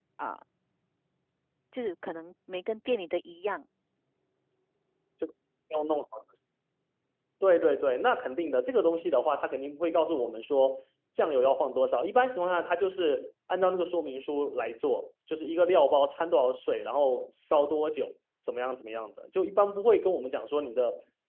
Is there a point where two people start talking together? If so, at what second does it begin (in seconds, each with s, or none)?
none